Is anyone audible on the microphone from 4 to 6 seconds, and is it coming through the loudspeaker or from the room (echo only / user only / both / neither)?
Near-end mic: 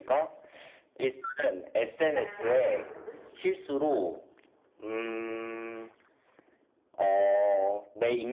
echo only